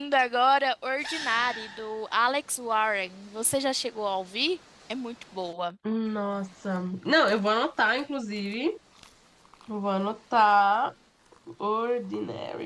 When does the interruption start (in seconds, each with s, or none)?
none